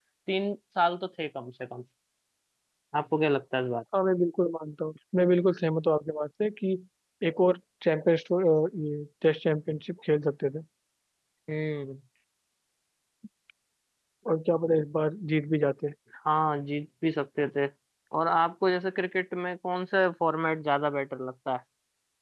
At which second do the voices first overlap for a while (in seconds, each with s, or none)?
none